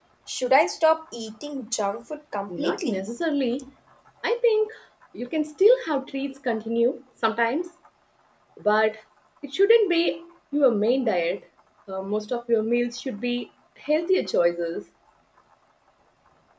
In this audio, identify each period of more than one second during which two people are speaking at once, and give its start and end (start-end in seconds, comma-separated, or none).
none